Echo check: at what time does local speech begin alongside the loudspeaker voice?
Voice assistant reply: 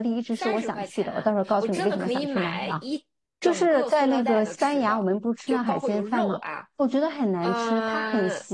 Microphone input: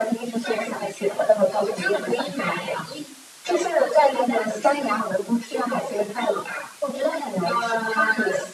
none

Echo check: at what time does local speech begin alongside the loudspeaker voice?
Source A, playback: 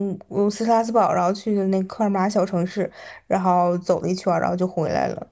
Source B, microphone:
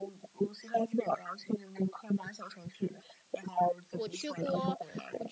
3.9 s

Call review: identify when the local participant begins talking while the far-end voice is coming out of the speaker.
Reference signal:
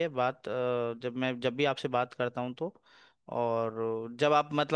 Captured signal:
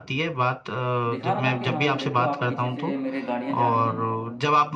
1.1 s

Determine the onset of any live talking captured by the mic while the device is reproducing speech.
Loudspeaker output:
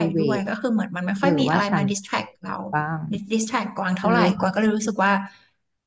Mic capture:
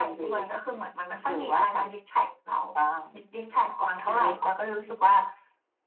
none

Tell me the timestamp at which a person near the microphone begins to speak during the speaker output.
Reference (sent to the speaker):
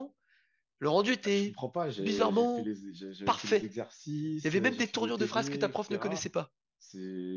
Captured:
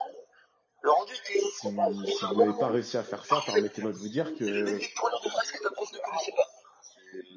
1.4 s

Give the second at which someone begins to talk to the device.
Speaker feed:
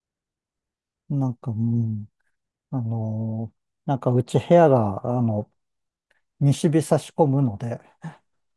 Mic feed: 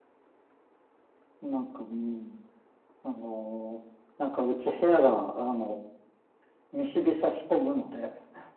none

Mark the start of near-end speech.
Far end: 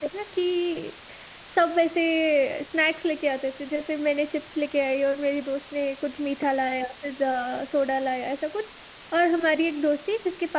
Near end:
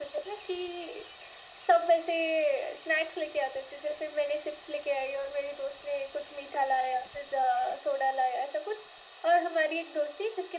none

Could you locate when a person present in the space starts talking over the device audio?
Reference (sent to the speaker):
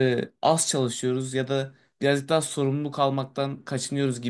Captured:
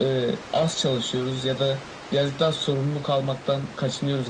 none

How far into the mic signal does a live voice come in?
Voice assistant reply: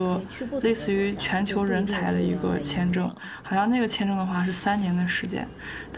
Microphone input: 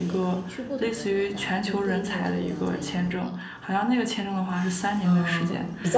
5.0 s

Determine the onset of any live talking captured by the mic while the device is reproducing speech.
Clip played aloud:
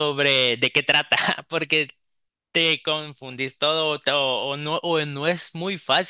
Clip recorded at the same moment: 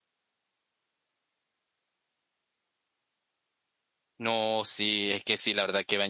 4.2 s

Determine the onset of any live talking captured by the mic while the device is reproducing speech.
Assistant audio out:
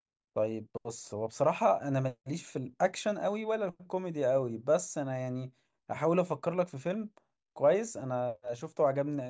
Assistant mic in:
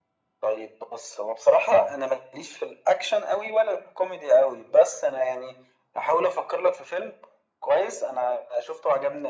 none

